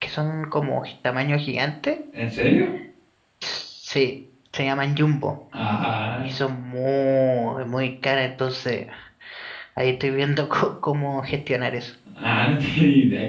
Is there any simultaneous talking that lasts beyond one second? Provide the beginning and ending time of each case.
none

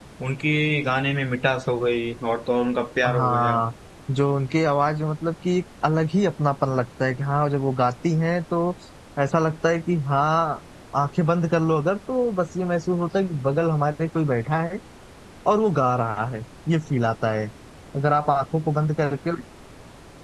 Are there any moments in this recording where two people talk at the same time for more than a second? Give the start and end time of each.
none

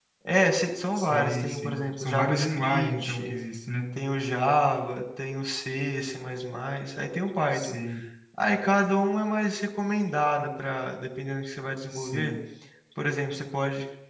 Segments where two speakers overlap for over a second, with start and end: 0.9-3.3

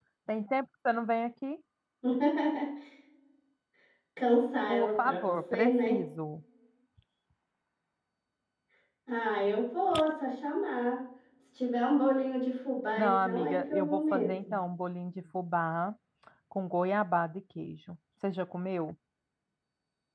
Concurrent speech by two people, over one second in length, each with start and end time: 4.7-6.1, 13.0-14.6

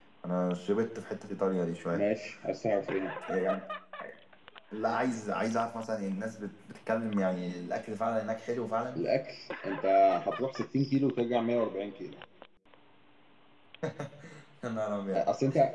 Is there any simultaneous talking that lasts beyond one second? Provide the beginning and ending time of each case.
none

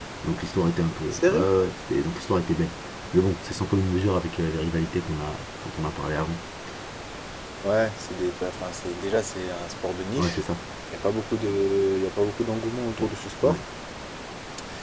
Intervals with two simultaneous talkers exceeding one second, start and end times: none

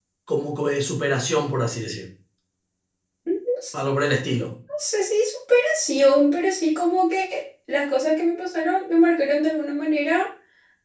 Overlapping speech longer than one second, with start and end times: none

